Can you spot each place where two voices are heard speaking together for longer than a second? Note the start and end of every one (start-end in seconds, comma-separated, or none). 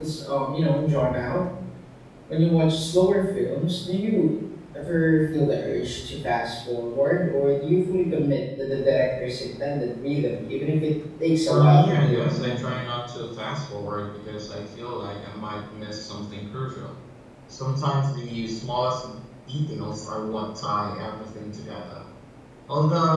11.5-12.8